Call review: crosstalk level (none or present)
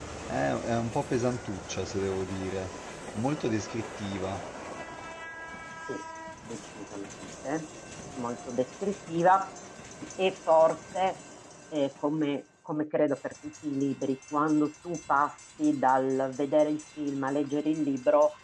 none